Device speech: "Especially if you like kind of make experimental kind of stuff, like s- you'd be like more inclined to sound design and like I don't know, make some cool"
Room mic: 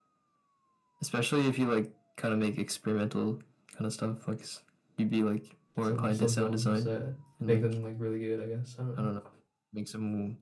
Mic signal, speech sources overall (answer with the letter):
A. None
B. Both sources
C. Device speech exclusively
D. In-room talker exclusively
B